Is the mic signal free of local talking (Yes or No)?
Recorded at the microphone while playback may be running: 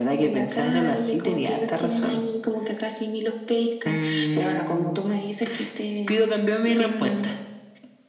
Yes